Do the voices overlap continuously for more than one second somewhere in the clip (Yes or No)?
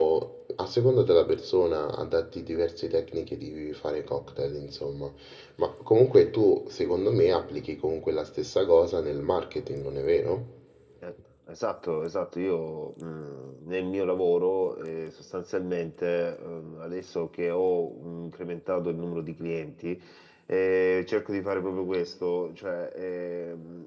No